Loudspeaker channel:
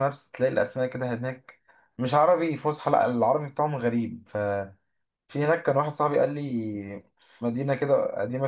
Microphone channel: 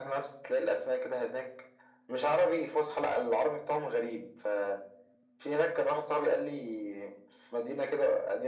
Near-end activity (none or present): none